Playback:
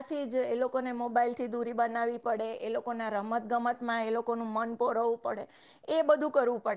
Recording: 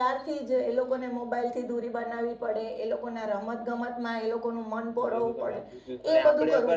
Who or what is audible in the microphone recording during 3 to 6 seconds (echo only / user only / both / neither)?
both